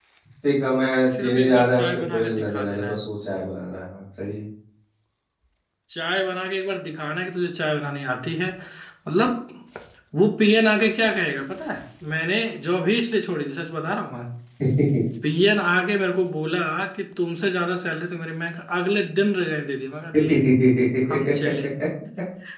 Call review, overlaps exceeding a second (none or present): present